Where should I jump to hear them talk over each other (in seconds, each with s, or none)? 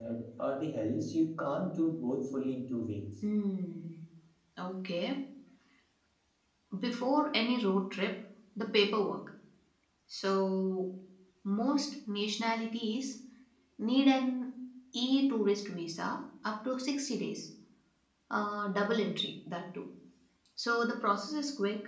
none